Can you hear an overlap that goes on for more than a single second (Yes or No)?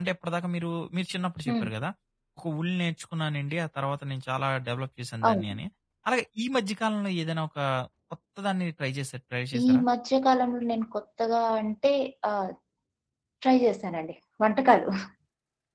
No